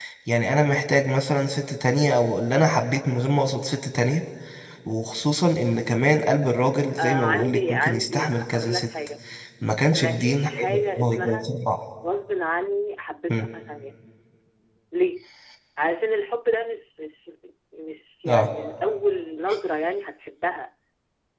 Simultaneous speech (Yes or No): Yes